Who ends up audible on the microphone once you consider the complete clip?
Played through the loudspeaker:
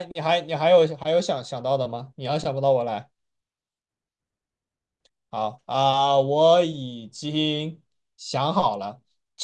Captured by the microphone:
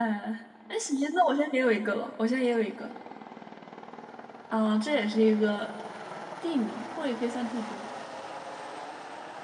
user only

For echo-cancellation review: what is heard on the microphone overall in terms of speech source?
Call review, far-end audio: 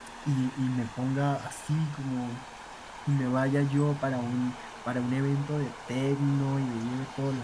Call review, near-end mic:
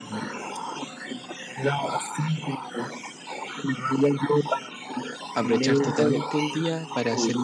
both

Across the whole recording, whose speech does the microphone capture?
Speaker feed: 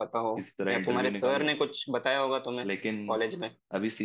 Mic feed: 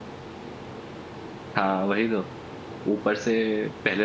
user only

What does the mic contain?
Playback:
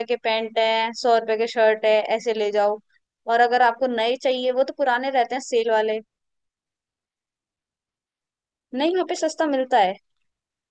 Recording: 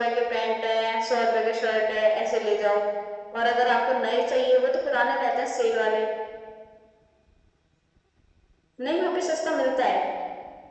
echo only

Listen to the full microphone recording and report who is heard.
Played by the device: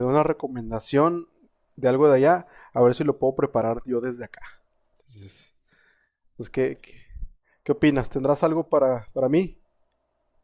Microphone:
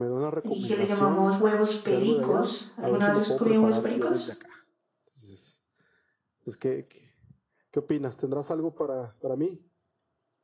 both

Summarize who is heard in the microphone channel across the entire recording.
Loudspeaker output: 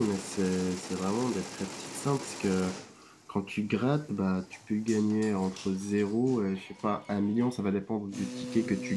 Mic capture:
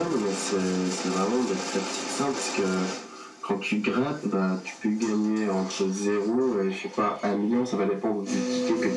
echo only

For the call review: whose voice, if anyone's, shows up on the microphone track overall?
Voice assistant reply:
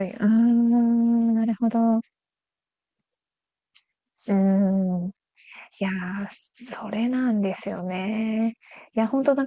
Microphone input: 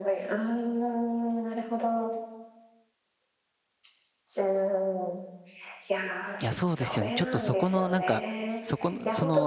both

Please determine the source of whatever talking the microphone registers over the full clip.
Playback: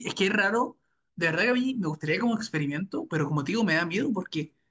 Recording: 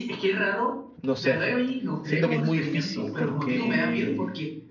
both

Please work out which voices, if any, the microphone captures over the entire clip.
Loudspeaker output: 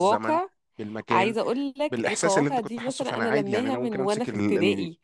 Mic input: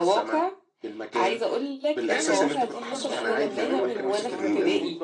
both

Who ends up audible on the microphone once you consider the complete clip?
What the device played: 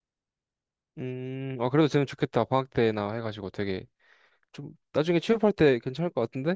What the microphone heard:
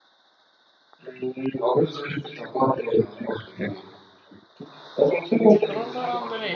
both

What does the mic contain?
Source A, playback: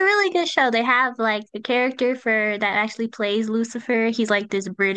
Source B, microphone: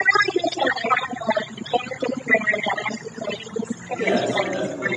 both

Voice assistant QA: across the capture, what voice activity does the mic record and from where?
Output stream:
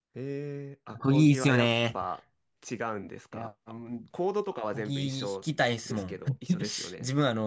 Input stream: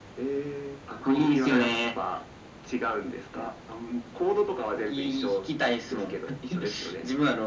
echo only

